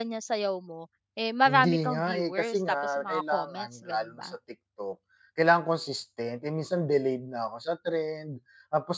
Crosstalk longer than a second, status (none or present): present